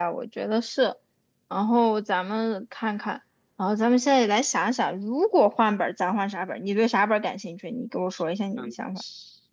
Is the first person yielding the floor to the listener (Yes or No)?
Yes